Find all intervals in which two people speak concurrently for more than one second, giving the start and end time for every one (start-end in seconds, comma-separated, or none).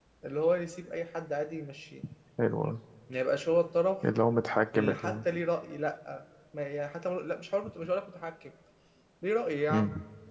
none